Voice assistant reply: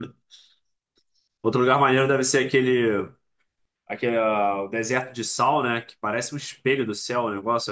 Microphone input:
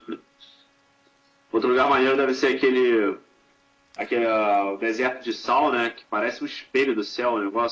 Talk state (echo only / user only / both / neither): echo only